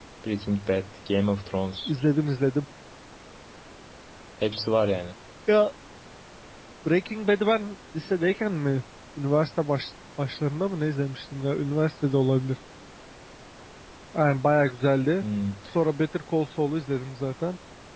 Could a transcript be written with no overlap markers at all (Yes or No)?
Yes